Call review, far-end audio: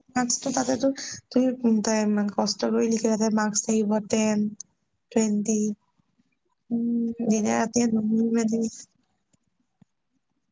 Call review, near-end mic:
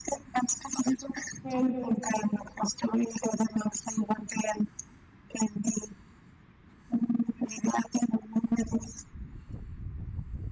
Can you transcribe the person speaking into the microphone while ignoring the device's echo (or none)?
সেইটো